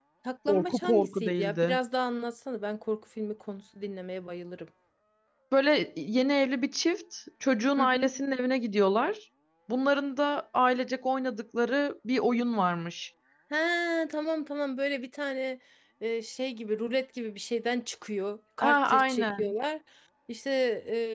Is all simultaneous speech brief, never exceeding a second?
No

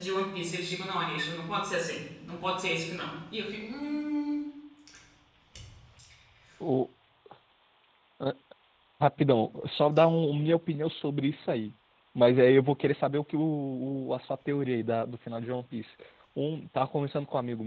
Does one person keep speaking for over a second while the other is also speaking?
No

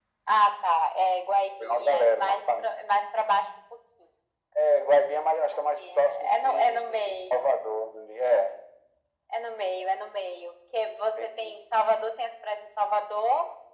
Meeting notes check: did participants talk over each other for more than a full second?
Yes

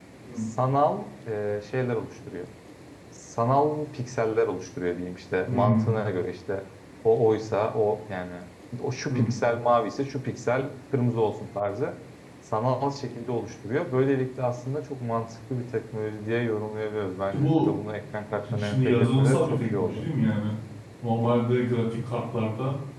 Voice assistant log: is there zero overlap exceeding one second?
No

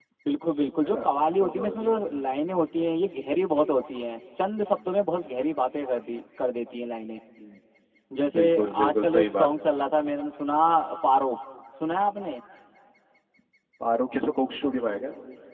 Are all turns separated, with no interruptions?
No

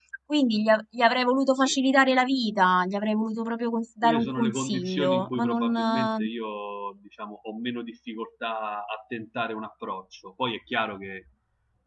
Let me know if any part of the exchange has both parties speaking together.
Yes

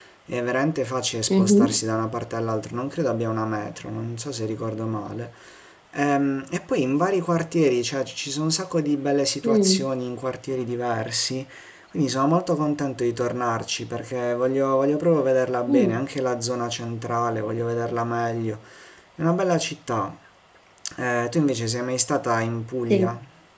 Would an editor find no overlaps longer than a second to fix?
Yes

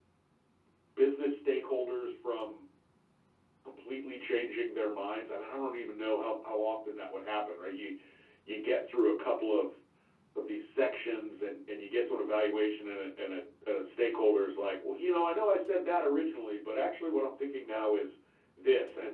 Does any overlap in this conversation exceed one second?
No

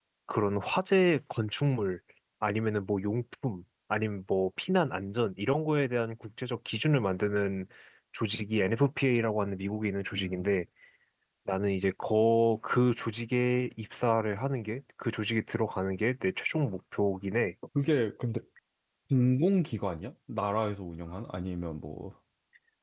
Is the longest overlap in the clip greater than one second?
No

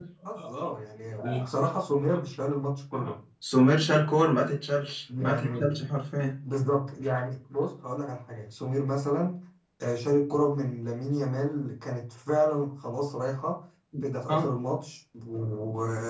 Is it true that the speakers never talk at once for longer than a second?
Yes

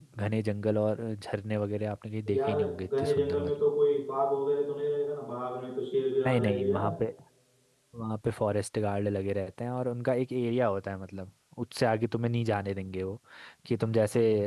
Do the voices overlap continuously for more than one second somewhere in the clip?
Yes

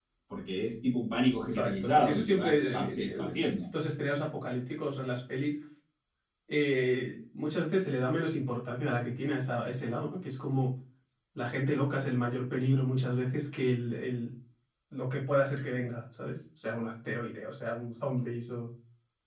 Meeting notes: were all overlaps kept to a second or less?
No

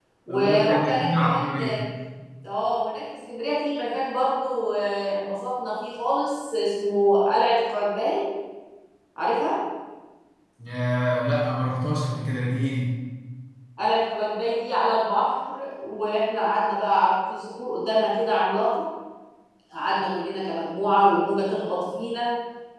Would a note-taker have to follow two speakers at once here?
Yes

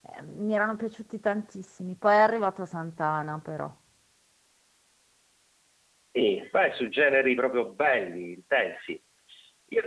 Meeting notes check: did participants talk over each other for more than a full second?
No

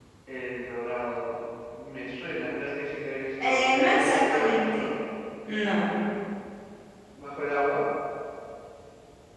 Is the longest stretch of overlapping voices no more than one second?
No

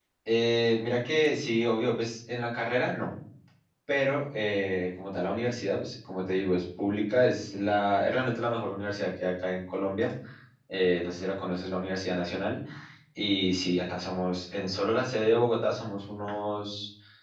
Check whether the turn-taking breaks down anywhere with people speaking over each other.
No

